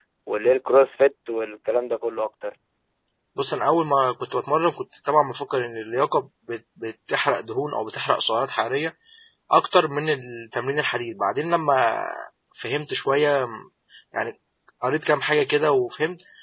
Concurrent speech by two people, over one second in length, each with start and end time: none

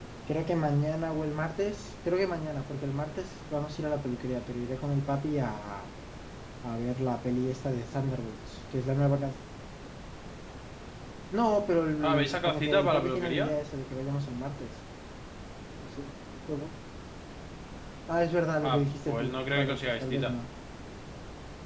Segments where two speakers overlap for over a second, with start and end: 12.0-13.5, 18.6-20.3

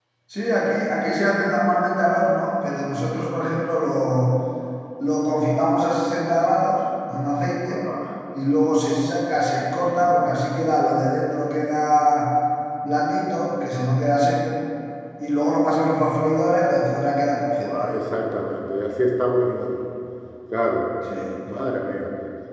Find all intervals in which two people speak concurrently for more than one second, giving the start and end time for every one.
none

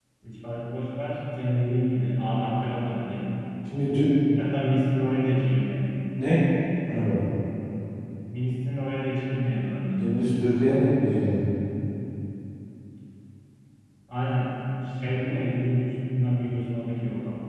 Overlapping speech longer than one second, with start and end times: none

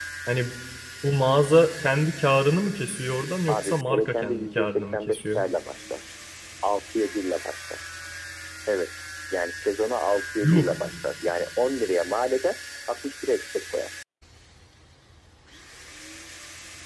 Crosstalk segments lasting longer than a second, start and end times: 3.5-5.4

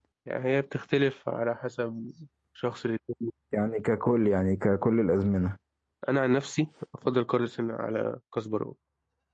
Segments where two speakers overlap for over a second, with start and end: none

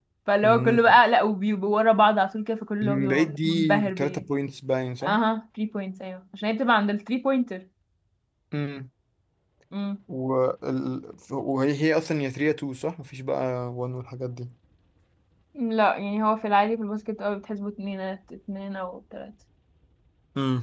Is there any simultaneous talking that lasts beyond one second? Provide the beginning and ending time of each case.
2.8-4.2

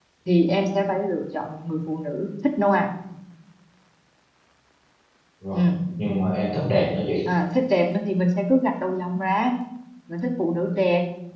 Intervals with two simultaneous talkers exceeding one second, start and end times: none

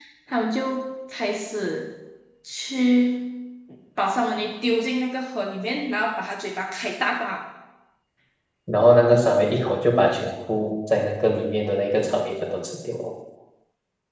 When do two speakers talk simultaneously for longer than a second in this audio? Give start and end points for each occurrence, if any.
none

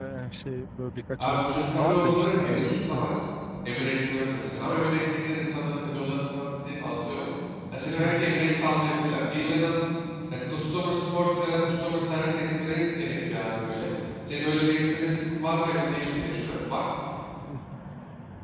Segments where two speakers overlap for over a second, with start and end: 1.2-3.1

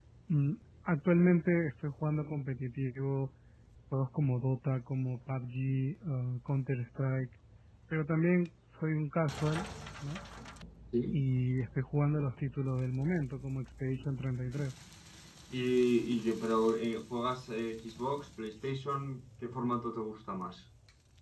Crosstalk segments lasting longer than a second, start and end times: none

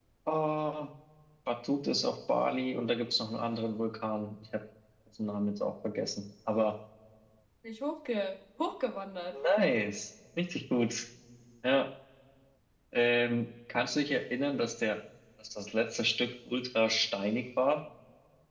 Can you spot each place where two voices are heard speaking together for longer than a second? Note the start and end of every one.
none

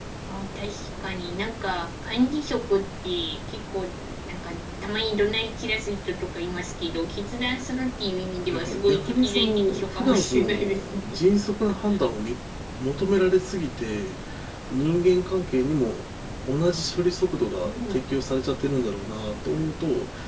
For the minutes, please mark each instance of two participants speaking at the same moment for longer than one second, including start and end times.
8.5-11.0

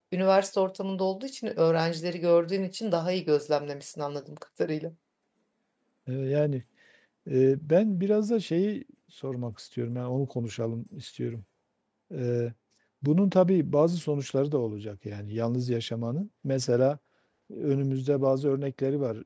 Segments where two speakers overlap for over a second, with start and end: none

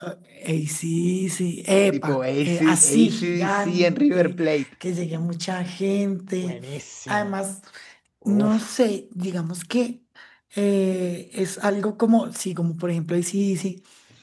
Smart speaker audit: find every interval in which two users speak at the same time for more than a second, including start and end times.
1.9-4.4

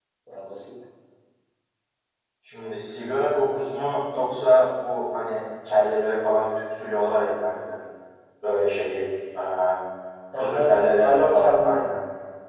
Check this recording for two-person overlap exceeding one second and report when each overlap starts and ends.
10.4-11.9

